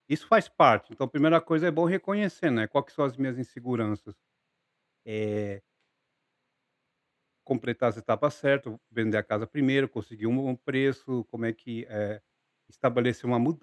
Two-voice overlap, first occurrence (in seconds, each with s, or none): none